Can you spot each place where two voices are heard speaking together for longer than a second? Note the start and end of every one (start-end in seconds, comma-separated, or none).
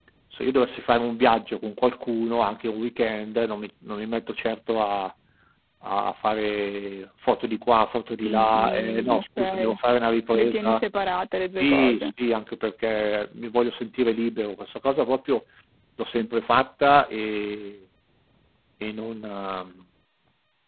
8.2-9.8